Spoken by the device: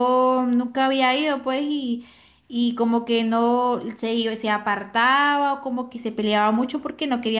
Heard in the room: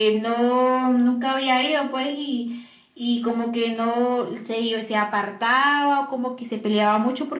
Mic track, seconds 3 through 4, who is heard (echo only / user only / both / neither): echo only